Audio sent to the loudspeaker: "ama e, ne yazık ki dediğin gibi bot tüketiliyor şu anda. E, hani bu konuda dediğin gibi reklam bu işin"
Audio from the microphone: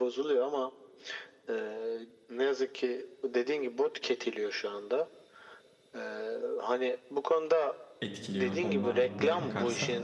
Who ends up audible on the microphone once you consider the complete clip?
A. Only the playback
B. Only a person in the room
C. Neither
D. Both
D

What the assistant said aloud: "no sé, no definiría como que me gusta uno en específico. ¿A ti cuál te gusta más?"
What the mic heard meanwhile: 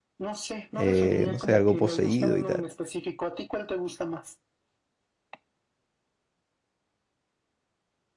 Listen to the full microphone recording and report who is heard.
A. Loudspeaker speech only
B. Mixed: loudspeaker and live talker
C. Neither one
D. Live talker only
B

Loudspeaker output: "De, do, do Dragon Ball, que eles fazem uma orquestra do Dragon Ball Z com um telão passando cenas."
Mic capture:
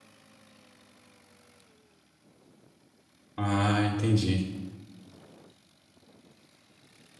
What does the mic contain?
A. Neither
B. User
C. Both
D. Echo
B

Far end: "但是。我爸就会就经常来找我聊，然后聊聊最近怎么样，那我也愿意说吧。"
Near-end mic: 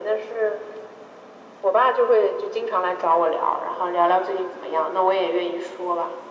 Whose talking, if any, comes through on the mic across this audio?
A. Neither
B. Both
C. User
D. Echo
D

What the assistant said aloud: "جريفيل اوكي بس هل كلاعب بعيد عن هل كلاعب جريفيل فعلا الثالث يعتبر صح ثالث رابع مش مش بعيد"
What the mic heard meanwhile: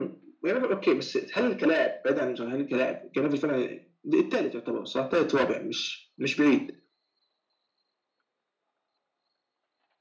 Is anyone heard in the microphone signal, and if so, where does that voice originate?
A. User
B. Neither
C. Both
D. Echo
D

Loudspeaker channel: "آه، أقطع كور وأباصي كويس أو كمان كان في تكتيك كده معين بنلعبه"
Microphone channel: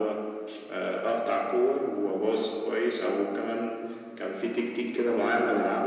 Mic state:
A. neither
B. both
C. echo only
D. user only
C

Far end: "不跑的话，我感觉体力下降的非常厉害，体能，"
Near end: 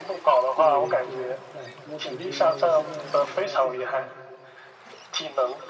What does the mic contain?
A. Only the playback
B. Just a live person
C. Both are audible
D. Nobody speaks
C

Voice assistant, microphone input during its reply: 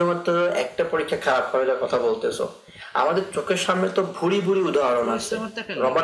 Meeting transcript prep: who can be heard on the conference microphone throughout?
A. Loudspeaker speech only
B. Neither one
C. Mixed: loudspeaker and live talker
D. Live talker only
C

